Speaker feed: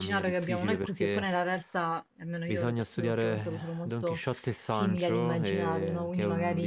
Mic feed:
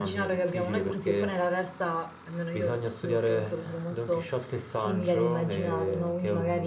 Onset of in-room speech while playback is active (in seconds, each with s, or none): none